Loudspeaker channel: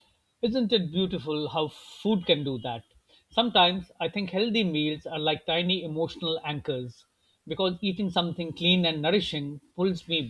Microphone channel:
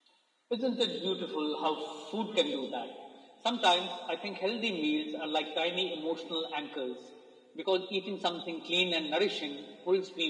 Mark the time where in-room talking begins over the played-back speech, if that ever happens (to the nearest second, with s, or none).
none